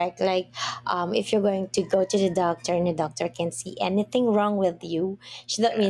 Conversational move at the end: listening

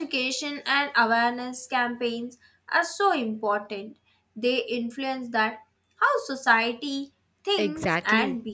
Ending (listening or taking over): taking over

